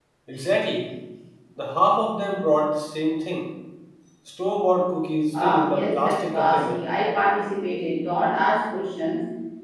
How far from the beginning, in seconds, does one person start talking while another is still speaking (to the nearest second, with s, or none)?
5 s